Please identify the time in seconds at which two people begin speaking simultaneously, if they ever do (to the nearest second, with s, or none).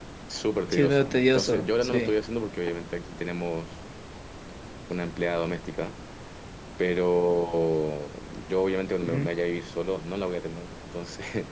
1 s